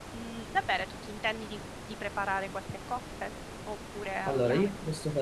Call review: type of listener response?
taking over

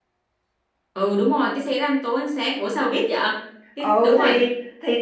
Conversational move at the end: taking over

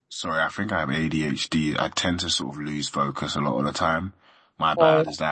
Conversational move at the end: listening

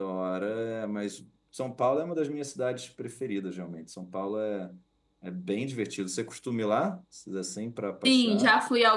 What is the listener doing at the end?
taking over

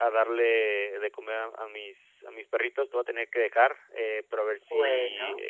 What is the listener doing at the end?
listening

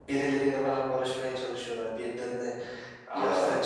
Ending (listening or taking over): listening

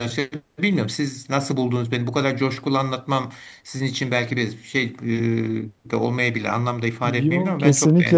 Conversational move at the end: taking over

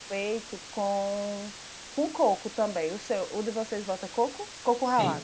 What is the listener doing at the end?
taking over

